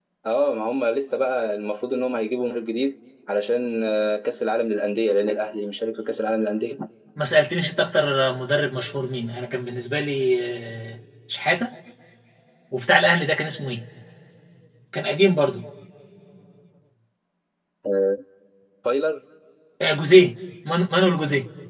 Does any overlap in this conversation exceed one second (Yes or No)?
No